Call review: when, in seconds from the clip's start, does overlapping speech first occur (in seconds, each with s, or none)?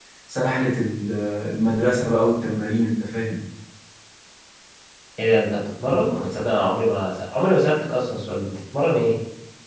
none